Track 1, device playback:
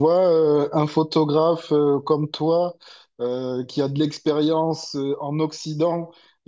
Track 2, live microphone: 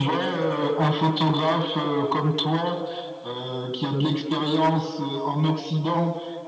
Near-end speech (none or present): none